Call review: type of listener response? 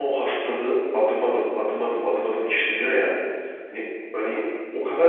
listening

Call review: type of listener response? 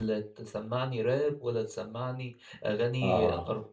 listening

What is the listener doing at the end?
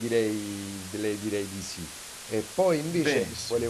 listening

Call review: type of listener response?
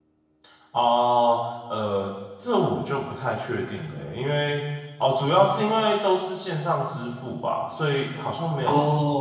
listening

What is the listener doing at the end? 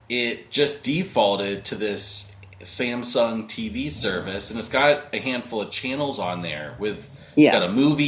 listening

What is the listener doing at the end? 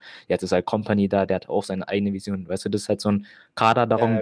listening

